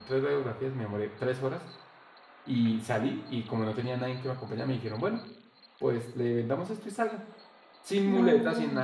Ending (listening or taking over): listening